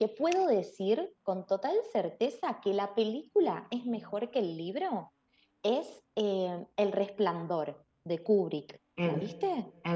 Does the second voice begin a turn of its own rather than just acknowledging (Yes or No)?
Yes